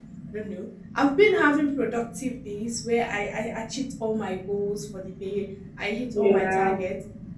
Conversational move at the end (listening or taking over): listening